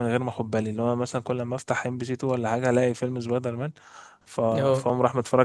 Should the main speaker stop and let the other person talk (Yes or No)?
No